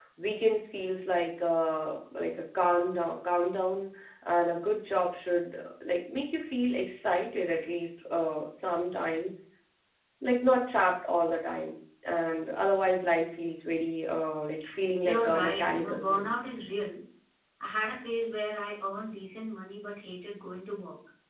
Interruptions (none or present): present